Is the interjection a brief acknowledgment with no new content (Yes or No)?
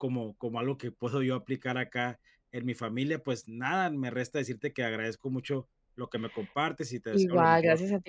No